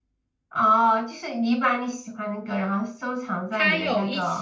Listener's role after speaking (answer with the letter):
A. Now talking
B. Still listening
A